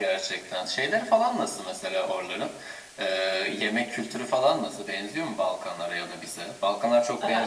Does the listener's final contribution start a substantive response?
Yes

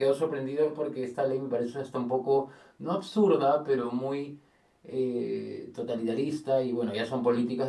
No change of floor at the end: Yes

